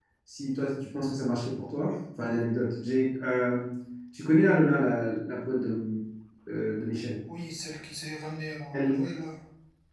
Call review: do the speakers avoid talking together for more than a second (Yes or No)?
Yes